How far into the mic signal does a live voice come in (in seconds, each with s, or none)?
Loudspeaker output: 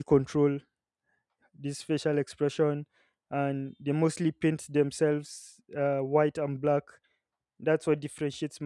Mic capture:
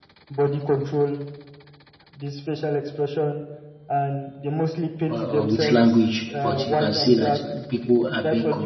5.1 s